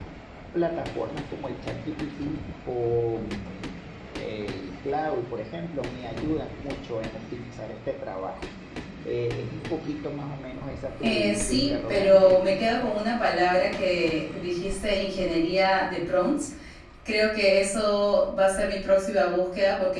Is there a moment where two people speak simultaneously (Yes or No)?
Yes